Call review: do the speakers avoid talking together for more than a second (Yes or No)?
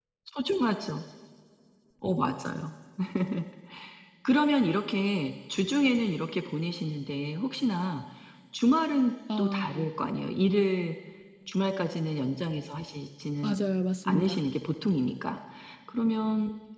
Yes